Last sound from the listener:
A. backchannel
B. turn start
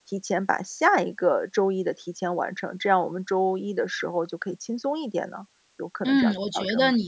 B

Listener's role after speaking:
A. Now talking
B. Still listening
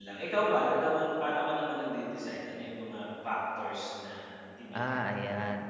A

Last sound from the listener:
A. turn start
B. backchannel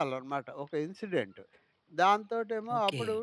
B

